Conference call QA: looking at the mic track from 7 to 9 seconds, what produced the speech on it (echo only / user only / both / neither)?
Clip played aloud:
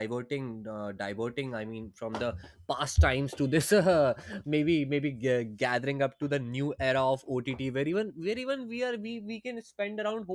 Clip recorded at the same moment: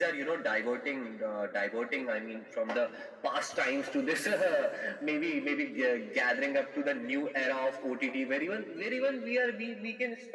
echo only